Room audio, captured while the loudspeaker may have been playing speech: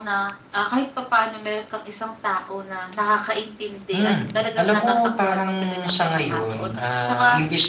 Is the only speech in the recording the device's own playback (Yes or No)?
No